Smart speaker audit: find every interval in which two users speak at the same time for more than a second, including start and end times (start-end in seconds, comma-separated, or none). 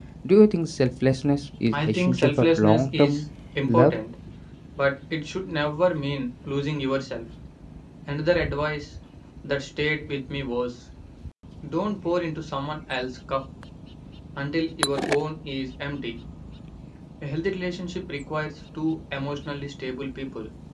1.7-3.2